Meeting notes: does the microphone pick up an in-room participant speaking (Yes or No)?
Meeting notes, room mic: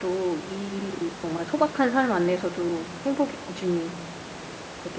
Yes